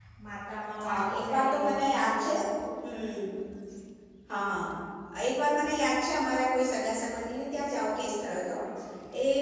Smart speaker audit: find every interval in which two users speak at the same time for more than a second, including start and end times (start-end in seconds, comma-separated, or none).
0.8-2.4